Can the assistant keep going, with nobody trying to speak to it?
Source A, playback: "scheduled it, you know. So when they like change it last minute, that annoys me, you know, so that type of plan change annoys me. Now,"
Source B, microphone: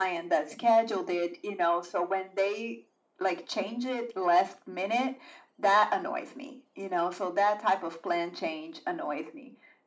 Yes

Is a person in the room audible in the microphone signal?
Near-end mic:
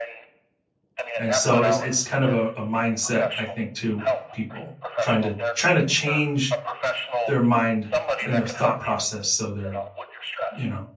Yes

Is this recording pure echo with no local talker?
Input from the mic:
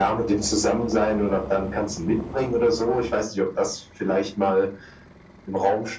Yes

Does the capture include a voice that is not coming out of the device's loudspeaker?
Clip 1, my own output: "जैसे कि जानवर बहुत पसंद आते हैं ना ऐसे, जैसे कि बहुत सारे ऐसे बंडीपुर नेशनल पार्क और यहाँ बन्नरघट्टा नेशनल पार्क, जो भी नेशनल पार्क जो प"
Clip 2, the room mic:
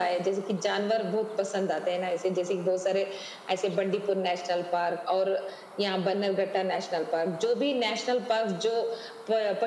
No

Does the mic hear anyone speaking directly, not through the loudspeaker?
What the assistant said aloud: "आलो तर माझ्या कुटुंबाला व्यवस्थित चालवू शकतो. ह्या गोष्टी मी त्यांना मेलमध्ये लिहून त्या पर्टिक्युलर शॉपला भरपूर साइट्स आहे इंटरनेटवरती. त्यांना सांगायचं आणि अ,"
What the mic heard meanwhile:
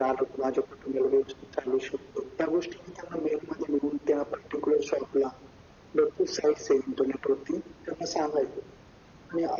No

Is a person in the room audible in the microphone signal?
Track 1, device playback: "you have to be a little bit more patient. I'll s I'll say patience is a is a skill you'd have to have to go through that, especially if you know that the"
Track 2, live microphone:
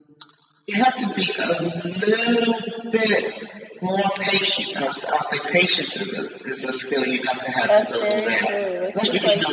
Yes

